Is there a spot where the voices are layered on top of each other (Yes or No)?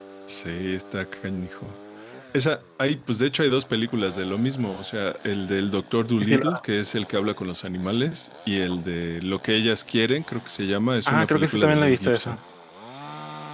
Yes